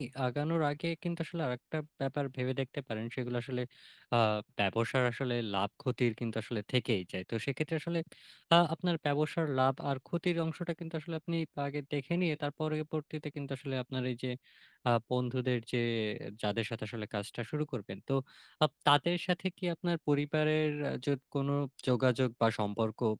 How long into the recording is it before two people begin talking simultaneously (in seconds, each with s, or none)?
none